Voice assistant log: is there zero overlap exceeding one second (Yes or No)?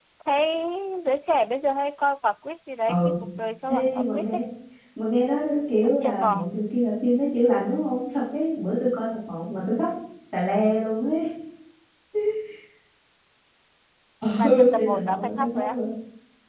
No